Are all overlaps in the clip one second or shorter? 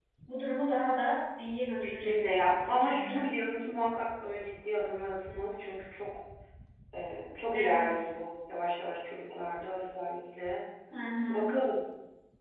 No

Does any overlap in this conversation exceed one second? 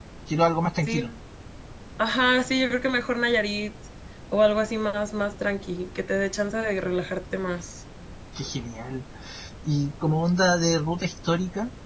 No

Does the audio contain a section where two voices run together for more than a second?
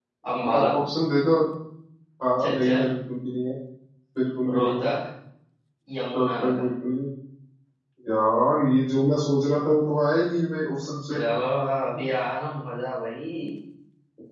No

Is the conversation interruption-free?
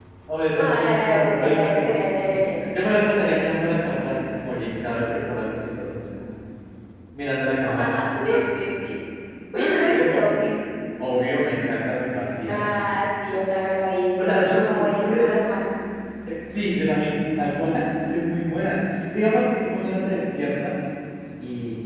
No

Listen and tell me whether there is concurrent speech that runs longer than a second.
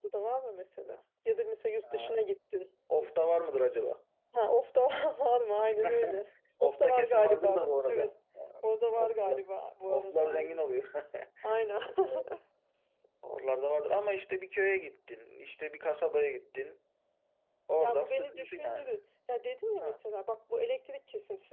Yes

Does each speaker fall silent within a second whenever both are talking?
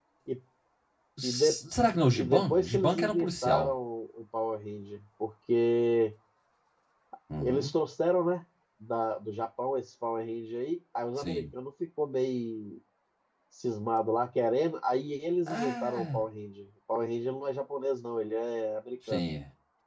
No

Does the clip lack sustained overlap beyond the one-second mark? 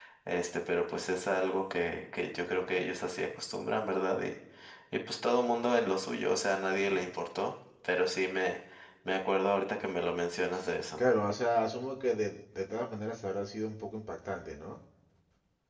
Yes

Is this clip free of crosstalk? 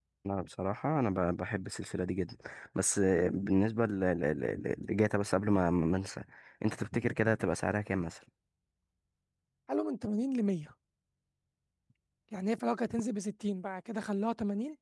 Yes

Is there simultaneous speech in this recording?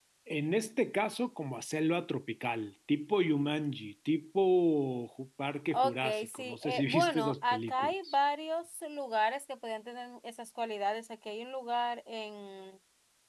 Yes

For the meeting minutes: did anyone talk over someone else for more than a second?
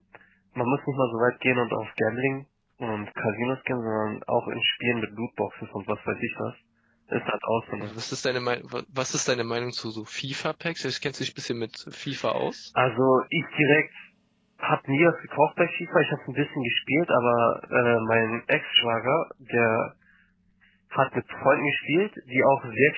No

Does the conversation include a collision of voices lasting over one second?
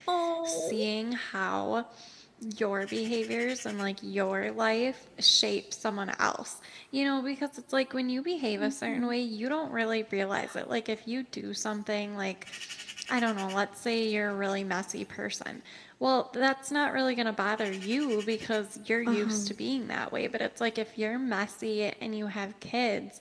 No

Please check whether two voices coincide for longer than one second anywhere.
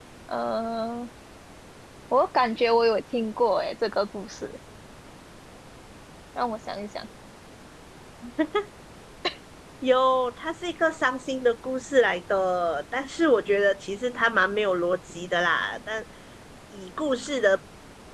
No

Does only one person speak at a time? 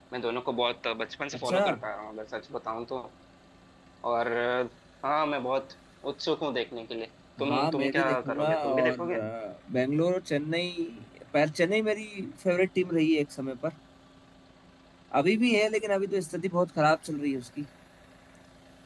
No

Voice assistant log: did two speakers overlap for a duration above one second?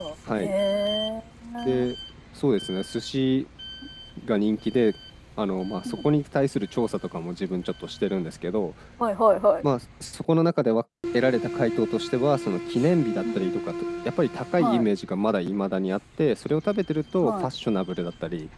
No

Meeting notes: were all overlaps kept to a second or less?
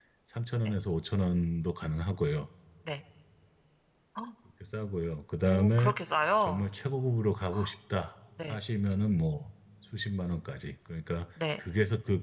Yes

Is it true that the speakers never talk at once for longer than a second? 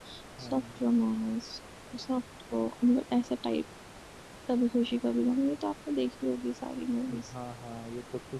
Yes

